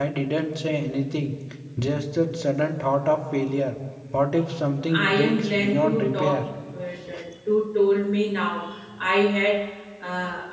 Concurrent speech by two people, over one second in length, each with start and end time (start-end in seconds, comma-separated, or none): 5.1-6.4